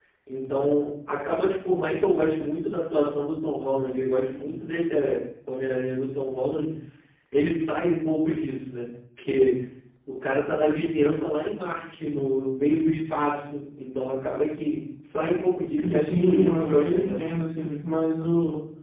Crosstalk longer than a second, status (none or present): present